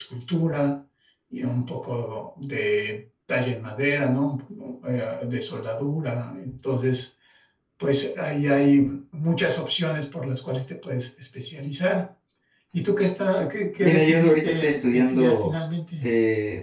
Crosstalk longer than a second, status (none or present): present